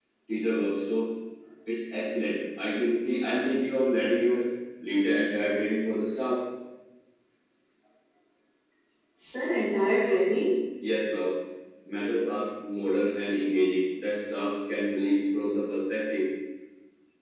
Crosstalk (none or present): none